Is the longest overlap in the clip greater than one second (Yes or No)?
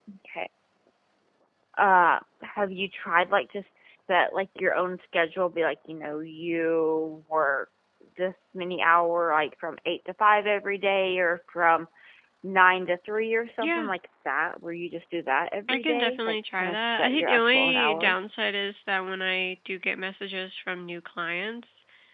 Yes